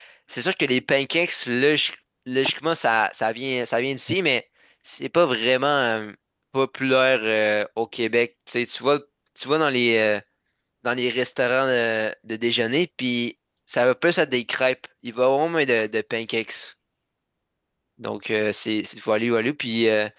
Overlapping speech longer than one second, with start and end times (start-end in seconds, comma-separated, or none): none